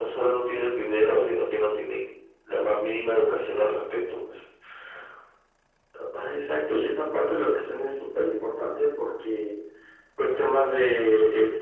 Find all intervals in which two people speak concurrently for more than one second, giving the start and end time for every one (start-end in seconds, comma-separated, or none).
none